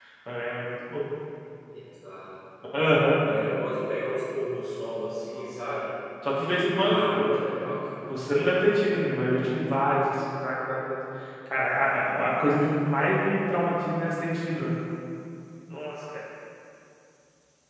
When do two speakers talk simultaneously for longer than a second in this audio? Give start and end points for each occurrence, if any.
6.8-8.6

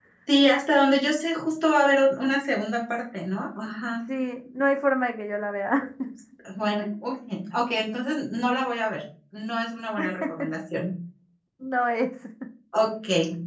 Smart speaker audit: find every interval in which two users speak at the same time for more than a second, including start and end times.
none

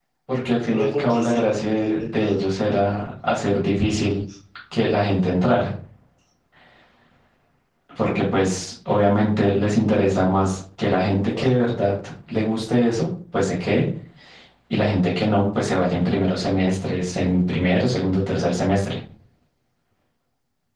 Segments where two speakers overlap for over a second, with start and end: 0.6-2.5

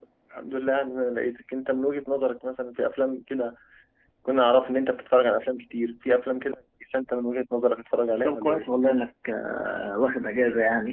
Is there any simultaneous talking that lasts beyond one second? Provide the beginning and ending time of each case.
none

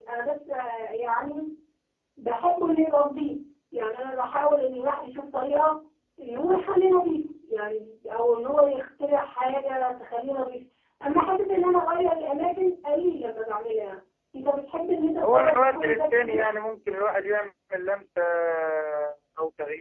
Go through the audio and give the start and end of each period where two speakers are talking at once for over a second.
15.2-16.5

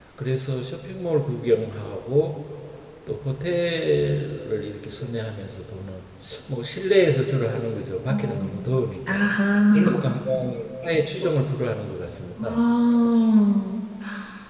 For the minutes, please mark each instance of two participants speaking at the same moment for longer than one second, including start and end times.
none

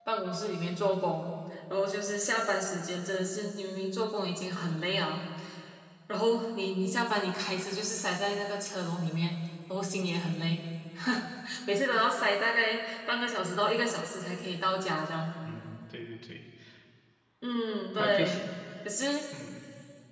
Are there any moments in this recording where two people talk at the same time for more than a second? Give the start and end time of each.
none

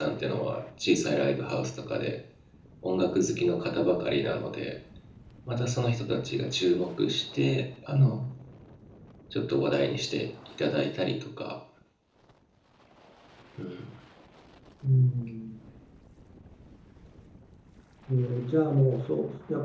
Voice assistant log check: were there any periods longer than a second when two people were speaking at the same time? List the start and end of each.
none

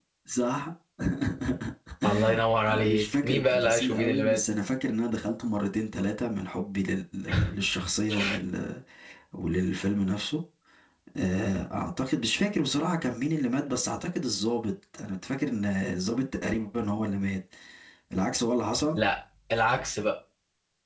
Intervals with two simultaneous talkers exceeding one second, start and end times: 2.7-4.4

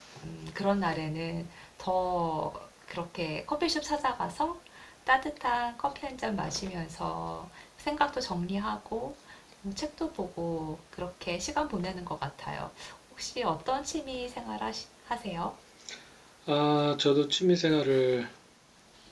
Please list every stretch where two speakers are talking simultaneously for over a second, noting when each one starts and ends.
none

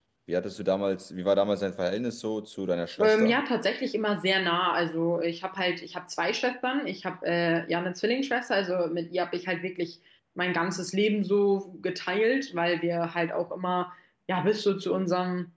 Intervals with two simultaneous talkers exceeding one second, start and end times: none

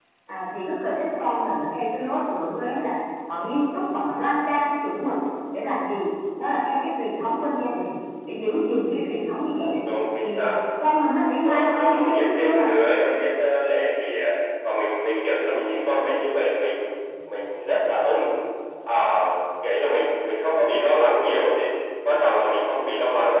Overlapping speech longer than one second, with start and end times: 11.4-12.7

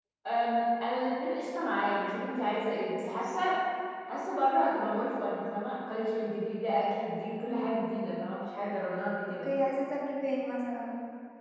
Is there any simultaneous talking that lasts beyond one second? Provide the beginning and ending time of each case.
none

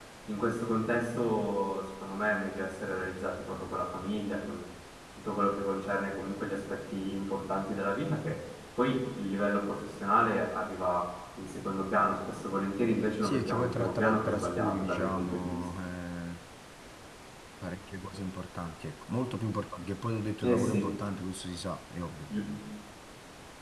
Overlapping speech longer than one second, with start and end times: 13.2-15.6

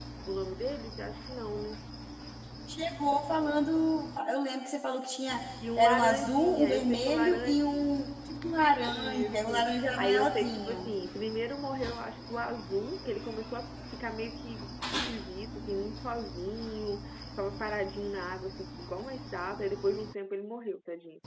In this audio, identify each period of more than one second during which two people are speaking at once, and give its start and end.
5.8-7.6, 8.9-10.9

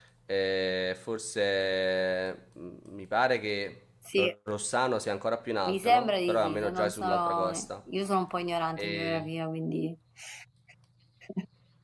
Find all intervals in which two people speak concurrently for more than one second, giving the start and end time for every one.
5.7-7.7

